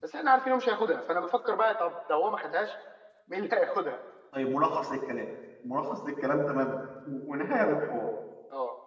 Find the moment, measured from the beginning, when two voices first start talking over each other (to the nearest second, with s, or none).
none